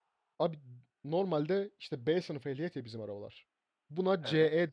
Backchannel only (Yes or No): Yes